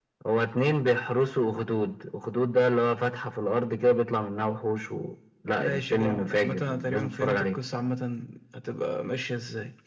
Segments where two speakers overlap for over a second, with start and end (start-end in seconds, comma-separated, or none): 5.6-7.5